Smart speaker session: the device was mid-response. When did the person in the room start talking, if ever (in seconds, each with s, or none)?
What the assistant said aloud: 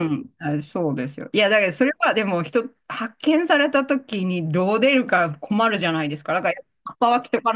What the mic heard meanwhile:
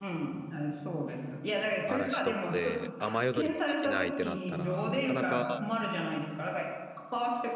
1.8 s